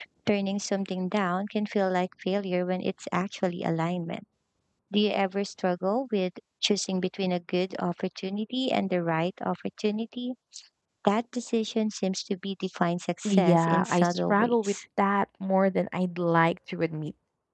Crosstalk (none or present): present